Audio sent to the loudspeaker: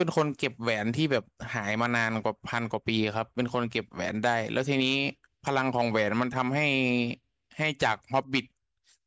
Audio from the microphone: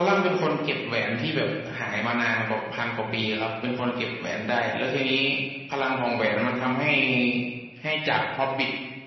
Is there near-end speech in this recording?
No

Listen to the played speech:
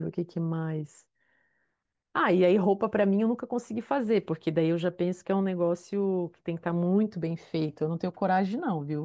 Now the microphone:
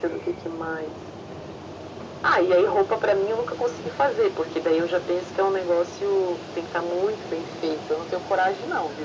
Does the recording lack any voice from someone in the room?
Yes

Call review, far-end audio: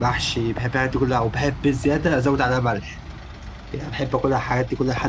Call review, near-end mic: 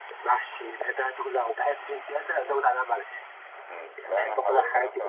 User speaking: Yes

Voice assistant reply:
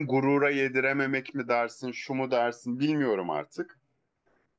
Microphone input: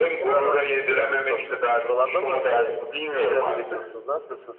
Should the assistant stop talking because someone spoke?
Yes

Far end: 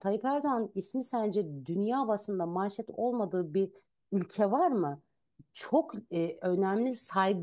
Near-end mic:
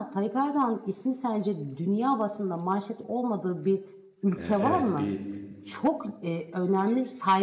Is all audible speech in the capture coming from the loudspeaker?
No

